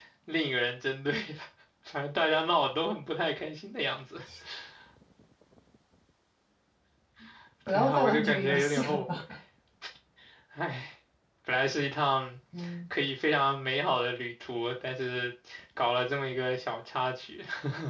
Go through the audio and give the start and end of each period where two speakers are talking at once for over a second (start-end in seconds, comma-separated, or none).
7.7-9.1